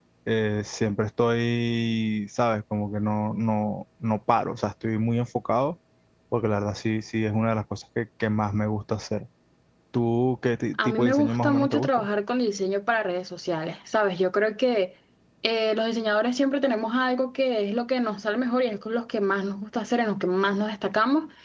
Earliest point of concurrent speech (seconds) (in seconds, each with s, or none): 10.8 s